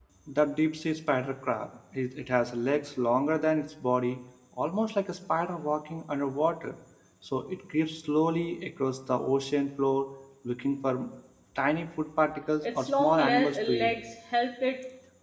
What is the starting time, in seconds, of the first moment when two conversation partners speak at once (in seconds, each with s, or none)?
12.6 s